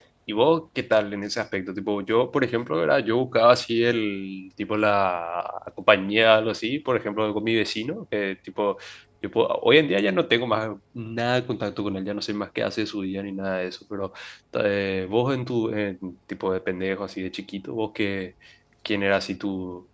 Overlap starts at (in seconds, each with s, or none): none